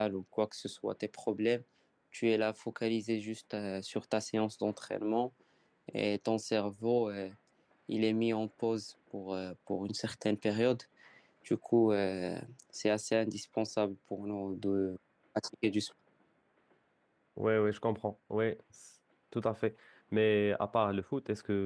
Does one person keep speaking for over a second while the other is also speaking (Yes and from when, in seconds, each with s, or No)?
No